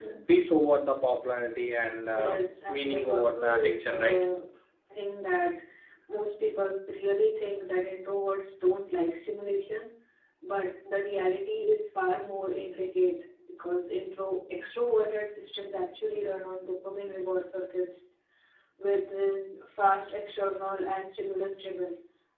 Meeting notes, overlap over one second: present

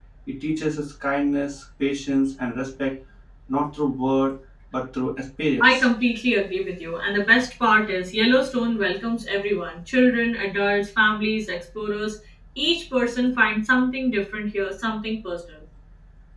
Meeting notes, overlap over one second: none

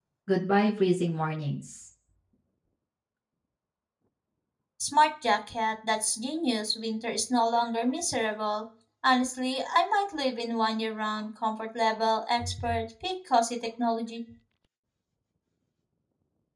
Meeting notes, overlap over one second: none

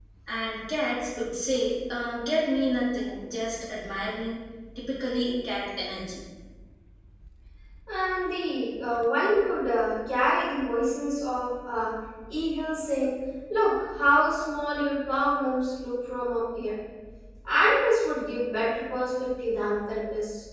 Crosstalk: none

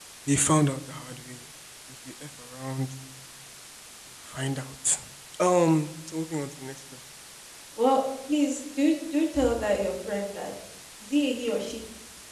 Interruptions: none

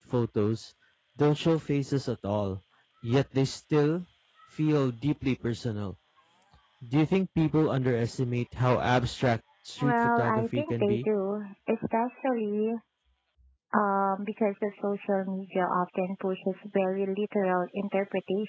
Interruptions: present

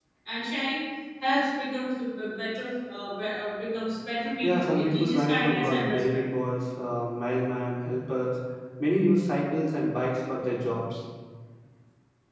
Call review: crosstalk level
present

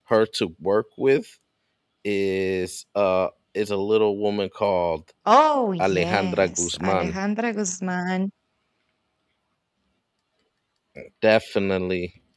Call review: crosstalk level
present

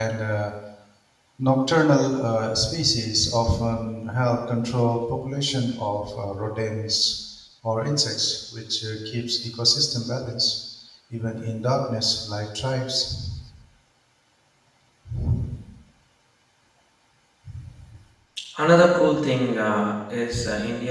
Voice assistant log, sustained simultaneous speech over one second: none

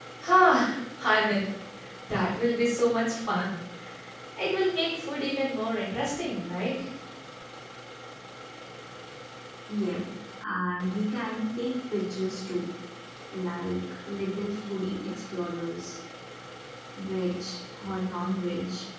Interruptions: none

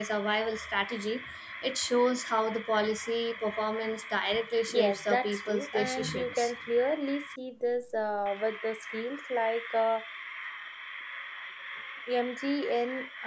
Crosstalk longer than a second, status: present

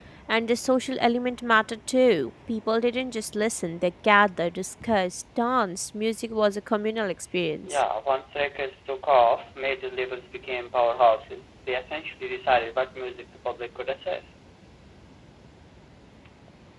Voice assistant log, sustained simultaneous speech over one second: none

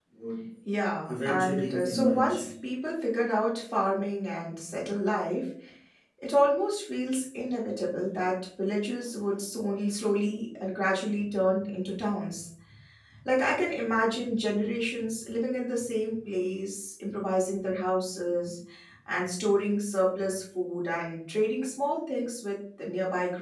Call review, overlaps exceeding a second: present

